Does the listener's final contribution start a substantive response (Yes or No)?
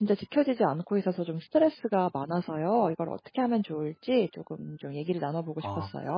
Yes